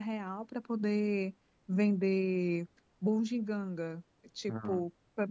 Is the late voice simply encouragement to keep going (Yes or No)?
Yes